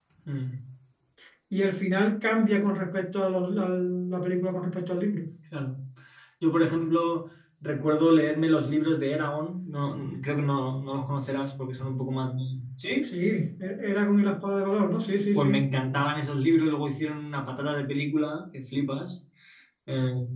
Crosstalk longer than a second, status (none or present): none